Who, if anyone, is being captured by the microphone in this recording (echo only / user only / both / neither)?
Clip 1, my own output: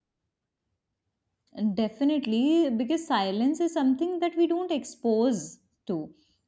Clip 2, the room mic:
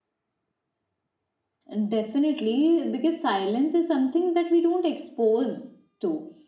echo only